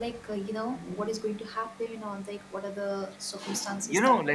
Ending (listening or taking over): taking over